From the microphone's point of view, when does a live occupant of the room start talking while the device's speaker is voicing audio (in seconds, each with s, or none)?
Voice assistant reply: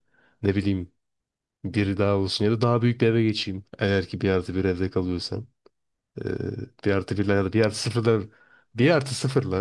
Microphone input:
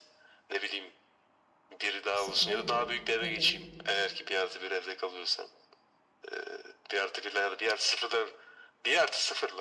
2.1 s